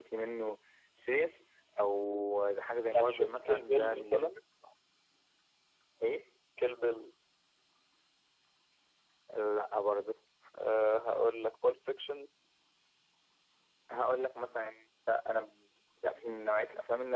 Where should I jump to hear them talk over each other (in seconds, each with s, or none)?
2.9 s